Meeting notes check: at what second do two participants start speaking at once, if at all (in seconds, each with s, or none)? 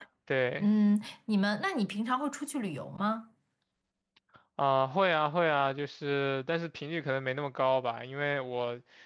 none